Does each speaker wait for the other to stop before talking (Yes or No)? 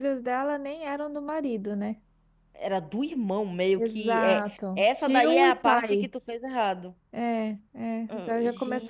No